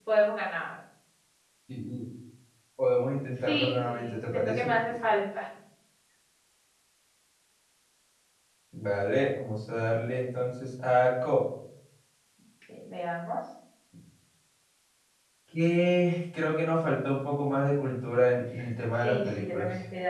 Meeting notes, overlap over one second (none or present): present